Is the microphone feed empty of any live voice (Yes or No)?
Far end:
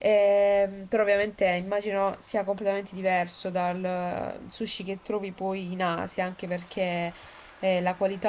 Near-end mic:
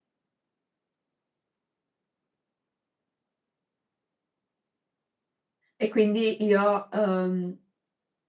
No